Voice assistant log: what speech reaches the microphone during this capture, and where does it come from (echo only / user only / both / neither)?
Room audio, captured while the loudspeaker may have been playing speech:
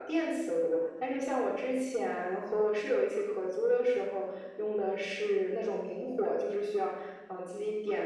echo only